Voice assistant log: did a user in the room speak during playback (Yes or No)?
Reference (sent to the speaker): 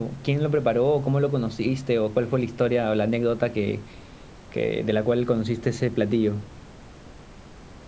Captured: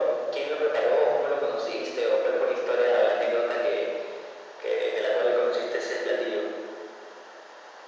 No